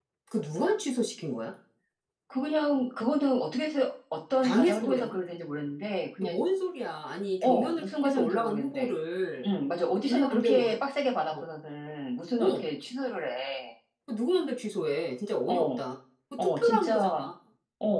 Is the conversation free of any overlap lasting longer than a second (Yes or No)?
No